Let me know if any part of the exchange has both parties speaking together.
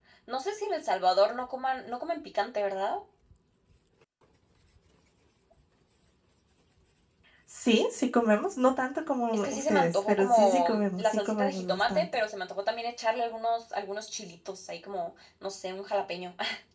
Yes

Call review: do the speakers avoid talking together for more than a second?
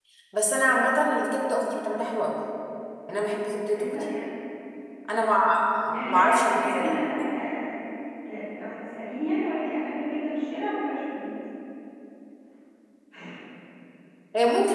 No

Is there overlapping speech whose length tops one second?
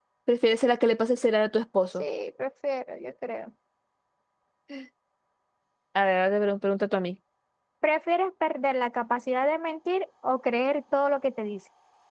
No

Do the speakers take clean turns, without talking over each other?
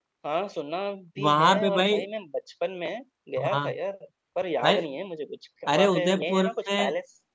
No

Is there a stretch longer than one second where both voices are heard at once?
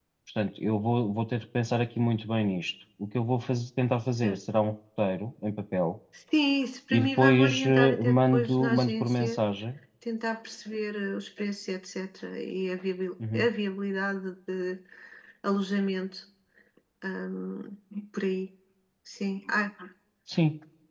Yes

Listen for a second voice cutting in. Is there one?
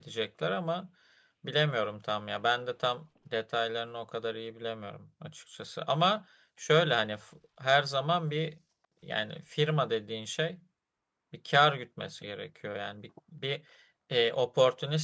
No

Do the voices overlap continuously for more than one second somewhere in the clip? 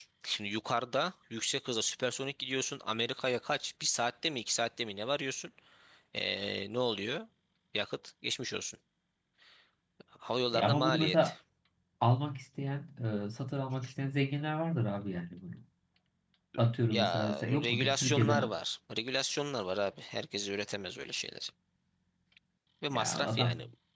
Yes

